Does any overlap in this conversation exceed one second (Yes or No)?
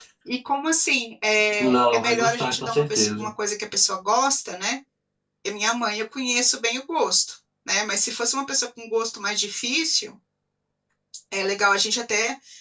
Yes